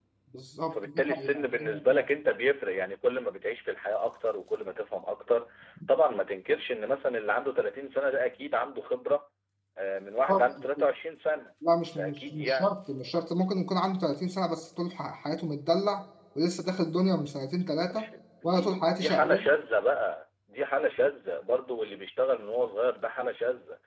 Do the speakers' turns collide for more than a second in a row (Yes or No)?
Yes